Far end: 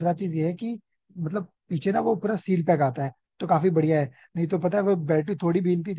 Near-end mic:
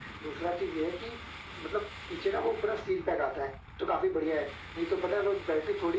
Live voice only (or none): none